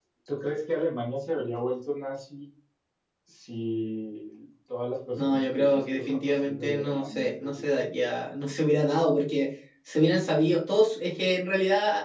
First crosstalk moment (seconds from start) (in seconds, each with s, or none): 5.2 s